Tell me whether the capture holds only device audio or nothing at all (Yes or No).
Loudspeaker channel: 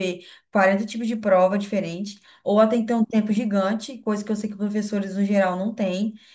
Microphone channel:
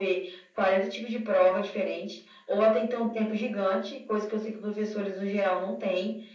Yes